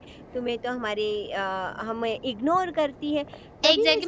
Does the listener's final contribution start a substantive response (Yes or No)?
Yes